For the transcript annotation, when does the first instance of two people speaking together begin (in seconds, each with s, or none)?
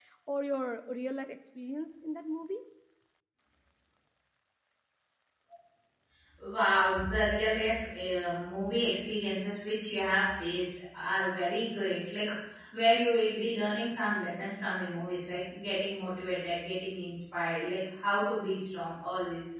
none